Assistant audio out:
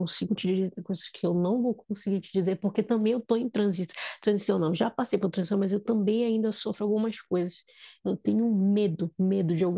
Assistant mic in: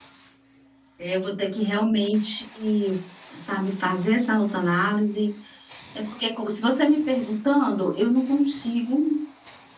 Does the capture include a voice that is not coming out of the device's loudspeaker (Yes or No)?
Yes